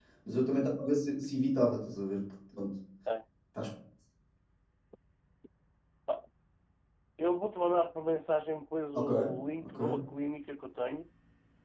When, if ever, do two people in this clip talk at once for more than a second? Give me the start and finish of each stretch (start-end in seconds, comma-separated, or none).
none